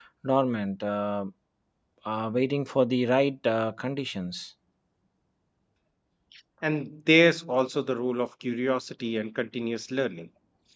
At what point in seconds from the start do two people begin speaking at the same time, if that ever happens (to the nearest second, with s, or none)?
none